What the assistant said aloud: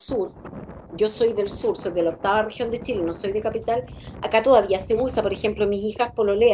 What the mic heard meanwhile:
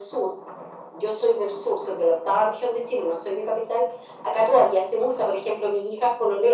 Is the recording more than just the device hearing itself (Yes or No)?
No